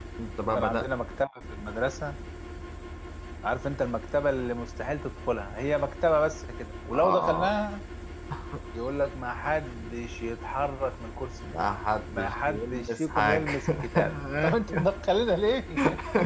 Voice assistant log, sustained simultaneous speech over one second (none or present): present